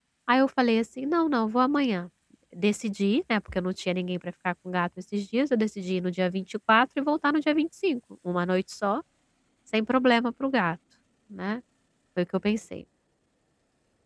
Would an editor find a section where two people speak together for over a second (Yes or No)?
No